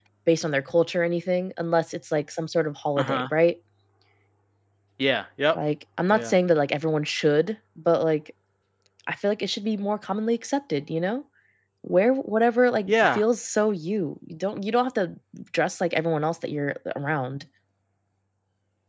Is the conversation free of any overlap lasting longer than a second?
Yes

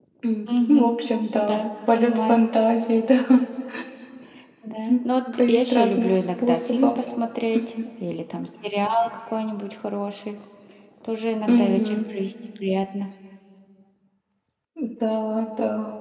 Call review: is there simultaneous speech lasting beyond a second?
Yes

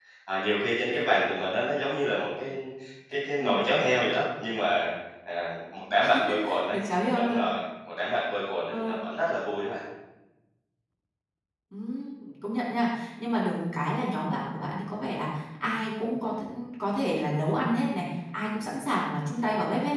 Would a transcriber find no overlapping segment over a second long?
Yes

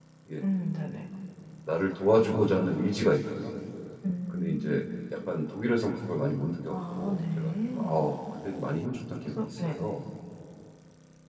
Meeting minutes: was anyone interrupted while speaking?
Yes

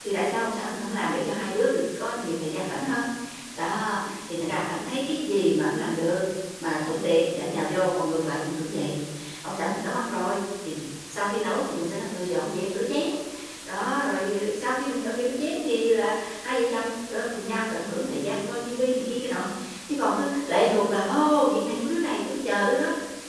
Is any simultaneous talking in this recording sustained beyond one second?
No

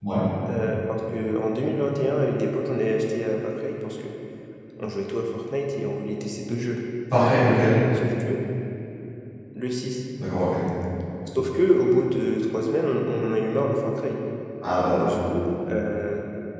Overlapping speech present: No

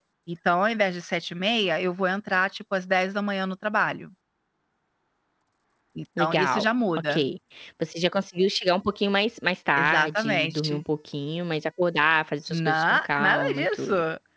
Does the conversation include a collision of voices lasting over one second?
Yes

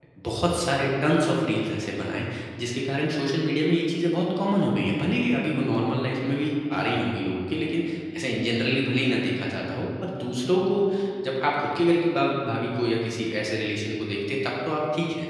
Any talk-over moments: No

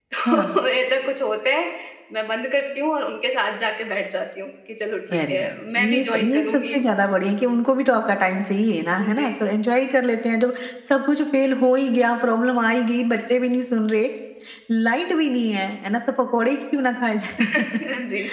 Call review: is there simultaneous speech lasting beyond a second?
Yes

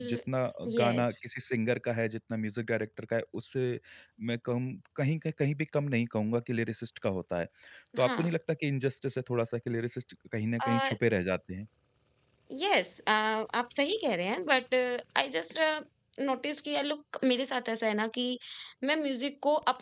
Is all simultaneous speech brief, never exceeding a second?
Yes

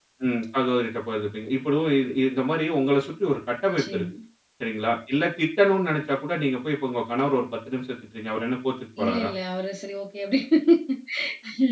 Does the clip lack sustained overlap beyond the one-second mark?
Yes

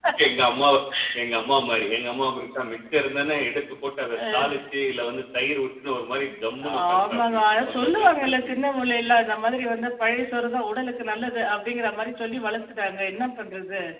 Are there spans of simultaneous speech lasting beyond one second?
Yes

